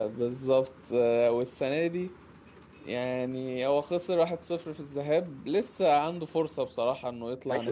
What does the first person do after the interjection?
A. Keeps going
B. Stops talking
B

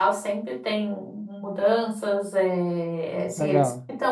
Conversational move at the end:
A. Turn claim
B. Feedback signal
B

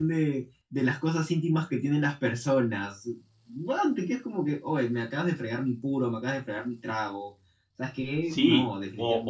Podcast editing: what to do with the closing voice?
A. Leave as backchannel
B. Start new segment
B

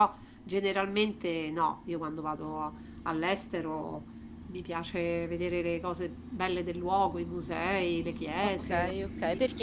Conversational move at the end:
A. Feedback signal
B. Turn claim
B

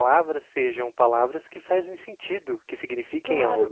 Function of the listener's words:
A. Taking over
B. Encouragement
A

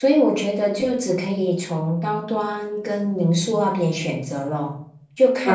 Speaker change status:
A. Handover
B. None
A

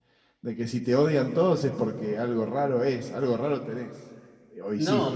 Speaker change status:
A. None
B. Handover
B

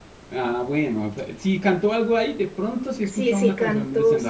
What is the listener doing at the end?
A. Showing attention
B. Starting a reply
B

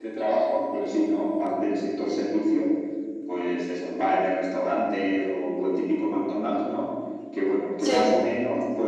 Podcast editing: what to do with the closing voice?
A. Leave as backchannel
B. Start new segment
A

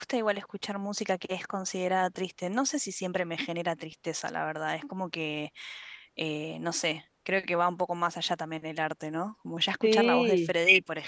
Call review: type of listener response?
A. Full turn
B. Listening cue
B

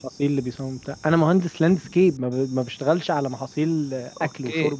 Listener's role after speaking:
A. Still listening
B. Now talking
B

